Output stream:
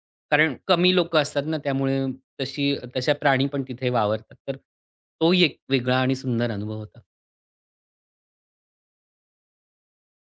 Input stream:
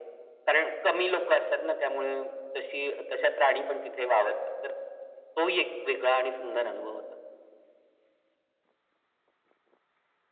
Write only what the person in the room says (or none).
none